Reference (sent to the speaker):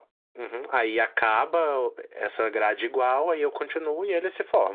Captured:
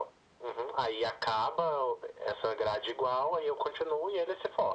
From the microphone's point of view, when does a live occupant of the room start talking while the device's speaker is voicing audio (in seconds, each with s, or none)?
none